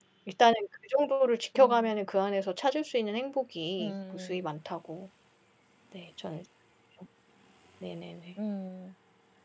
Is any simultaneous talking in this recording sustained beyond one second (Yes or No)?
No